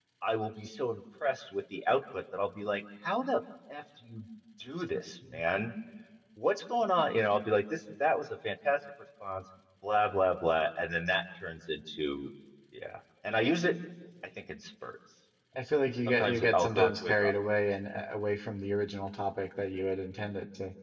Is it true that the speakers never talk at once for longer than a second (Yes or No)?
No